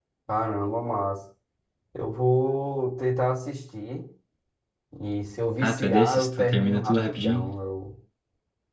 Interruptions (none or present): present